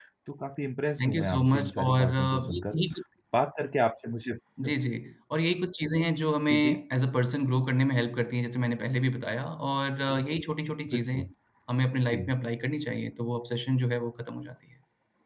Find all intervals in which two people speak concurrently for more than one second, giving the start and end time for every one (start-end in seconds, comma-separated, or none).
1.0-2.8